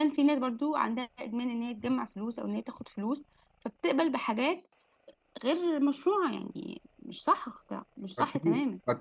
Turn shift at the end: Yes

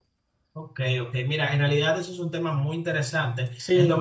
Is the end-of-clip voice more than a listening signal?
No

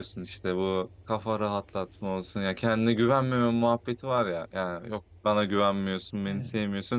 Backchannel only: Yes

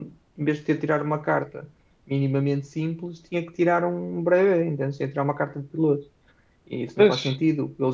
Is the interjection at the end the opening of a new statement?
No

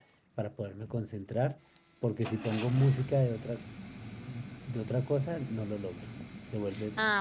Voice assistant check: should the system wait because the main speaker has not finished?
No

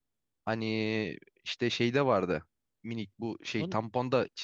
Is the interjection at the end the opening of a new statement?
No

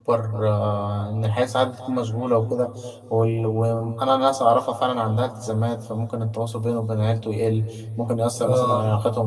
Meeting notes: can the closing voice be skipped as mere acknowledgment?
Yes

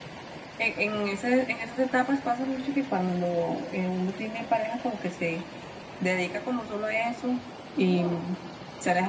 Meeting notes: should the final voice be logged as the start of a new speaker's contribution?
No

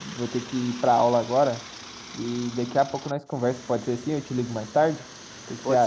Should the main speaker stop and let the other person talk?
Yes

